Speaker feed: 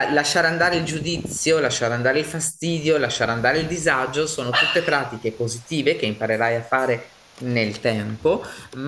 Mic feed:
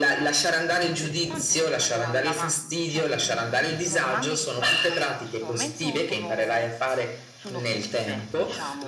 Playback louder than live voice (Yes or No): Yes